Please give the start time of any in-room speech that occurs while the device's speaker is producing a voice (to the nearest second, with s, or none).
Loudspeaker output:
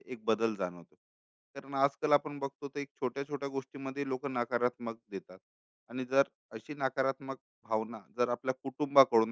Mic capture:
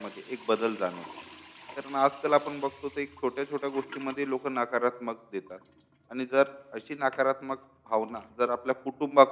none